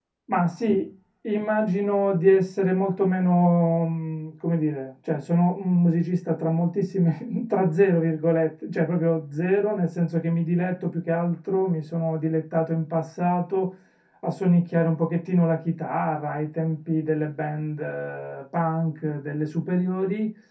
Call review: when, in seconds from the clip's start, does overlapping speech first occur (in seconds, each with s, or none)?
none